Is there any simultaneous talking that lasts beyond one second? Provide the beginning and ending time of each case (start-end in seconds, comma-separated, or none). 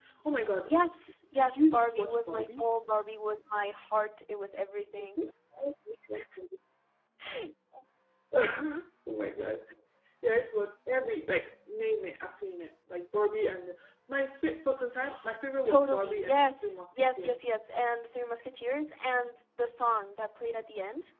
1.3-2.6, 15.6-17.4